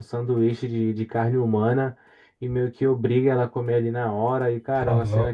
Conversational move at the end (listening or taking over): listening